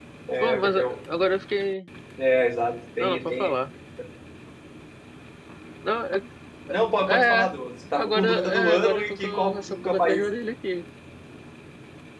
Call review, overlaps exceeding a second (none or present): present